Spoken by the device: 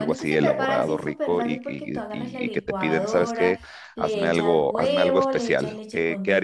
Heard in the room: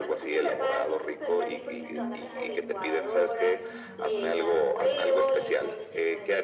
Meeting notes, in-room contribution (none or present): present